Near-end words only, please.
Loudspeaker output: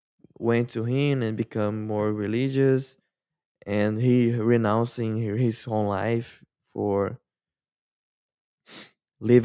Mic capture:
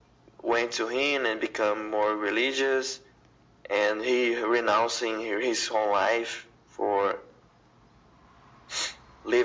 none

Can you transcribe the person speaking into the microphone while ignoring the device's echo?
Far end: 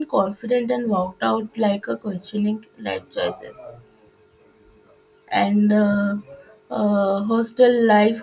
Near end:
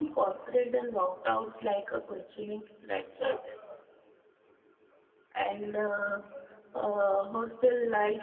none

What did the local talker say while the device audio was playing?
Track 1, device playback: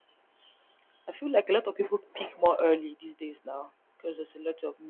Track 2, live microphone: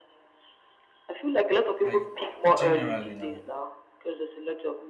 like generally now,

